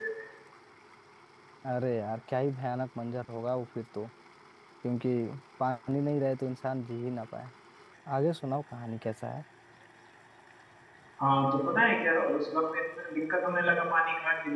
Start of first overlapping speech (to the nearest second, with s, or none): none